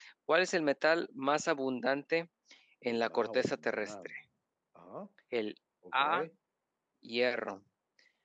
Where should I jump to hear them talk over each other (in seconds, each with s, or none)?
2.9 s